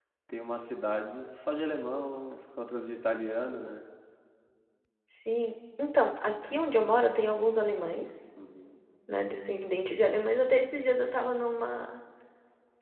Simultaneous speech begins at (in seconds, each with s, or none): none